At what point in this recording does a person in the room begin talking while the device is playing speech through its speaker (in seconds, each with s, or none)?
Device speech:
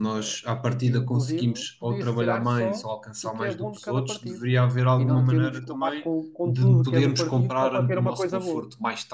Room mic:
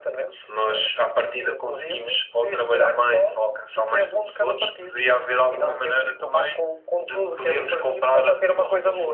none